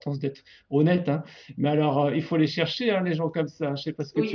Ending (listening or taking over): taking over